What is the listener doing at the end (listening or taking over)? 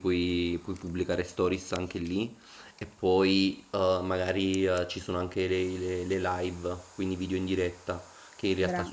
listening